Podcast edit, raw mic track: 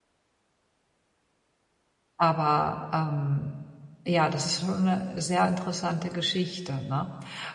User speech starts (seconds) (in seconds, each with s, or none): 2.2 s